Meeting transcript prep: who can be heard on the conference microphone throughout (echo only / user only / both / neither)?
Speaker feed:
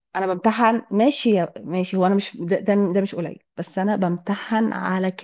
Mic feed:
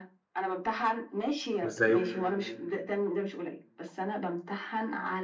both